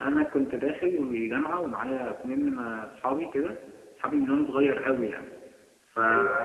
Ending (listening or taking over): listening